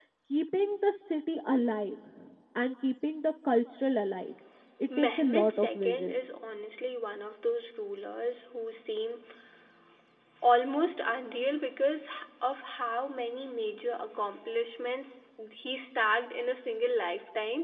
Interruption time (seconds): 5.0 s

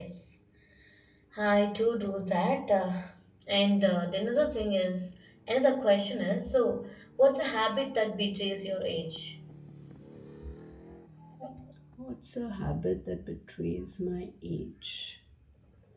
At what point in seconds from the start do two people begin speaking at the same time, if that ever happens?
none

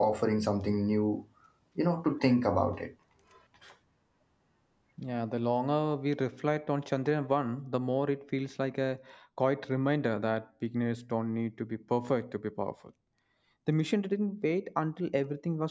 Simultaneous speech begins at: none

